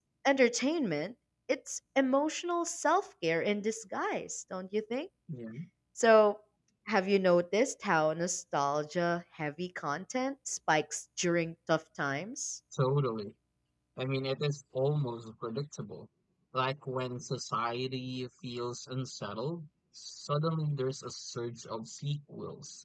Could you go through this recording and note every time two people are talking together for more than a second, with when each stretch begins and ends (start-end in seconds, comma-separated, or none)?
none